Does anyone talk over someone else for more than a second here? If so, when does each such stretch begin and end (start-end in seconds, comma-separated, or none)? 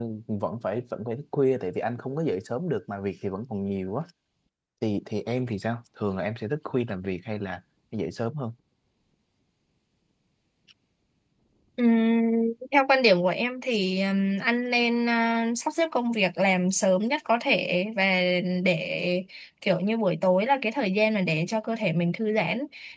none